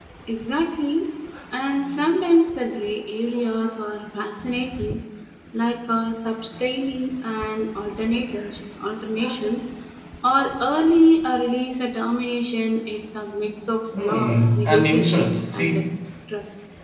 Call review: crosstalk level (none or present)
present